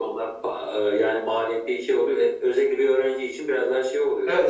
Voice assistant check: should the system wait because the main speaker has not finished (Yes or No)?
No